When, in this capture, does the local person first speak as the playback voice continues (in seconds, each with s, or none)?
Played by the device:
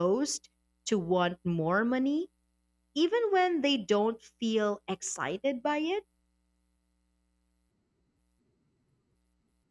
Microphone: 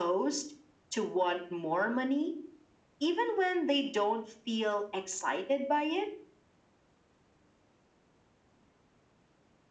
none